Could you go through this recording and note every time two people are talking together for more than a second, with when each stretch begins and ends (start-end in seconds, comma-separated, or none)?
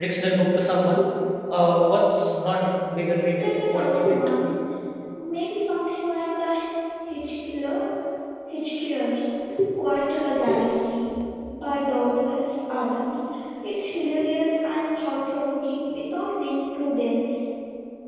2.9-4.6